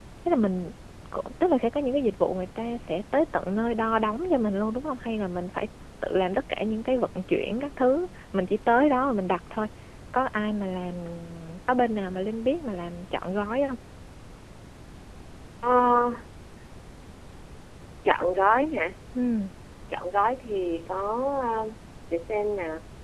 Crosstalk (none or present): none